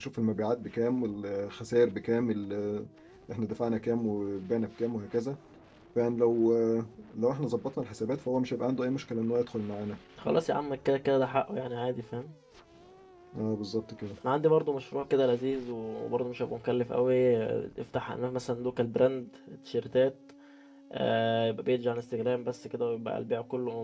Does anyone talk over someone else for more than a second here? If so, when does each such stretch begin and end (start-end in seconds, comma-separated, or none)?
none